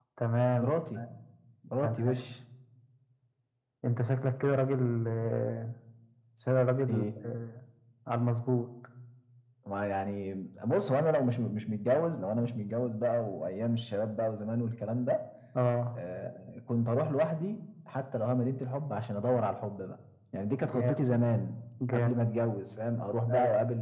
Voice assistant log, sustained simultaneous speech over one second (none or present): none